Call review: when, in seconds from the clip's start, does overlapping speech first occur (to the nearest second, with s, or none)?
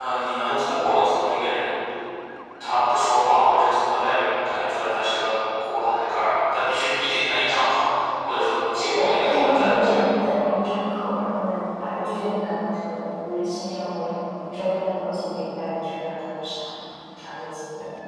9 s